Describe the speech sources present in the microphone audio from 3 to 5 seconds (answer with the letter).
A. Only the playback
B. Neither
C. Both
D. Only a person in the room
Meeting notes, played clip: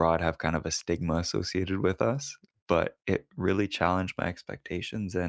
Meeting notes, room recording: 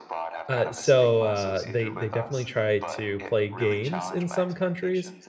C